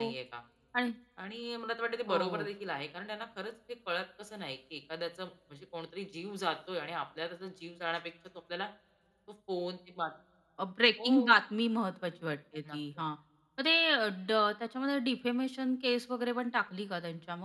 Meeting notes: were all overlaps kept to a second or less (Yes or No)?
Yes